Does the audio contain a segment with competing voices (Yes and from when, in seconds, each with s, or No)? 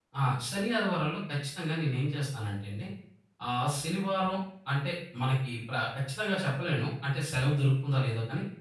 No